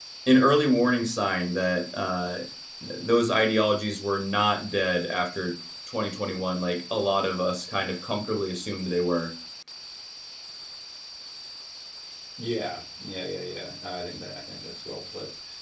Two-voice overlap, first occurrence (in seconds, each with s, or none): none